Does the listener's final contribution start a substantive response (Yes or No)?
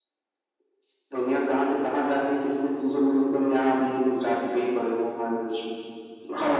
Yes